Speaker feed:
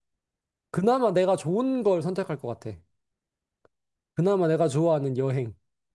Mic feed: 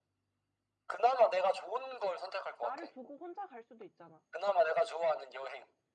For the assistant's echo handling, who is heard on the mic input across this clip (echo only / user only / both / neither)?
both